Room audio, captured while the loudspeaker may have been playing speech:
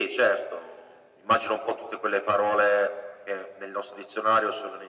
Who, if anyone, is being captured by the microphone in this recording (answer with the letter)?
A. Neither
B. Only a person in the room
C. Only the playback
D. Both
C